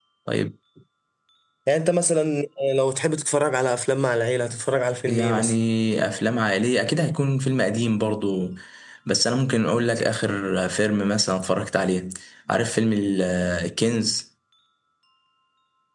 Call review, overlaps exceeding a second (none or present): none